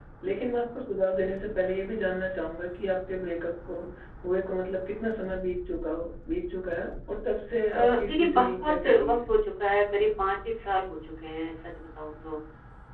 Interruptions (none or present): present